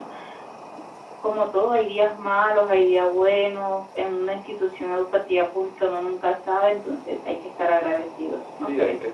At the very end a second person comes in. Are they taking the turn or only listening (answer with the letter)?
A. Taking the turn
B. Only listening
A